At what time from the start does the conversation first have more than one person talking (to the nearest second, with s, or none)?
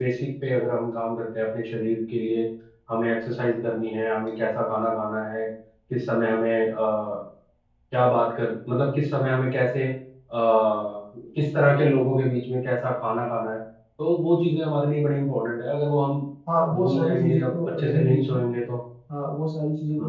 17 s